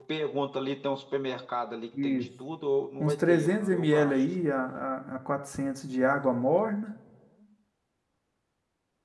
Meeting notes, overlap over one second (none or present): present